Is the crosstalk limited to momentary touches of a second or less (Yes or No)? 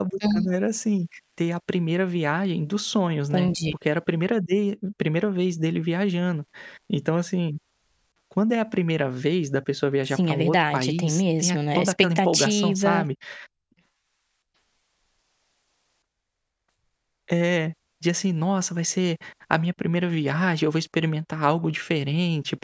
No